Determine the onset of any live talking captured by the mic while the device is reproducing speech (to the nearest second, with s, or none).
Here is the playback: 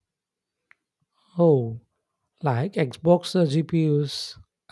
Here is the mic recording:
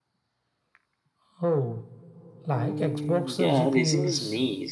3 s